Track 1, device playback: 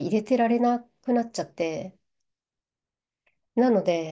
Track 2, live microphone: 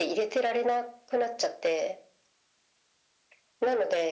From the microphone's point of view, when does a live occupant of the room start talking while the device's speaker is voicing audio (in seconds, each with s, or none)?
none